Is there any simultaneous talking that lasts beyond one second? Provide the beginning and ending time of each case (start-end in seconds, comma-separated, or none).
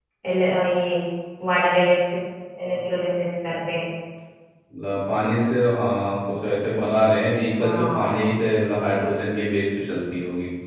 none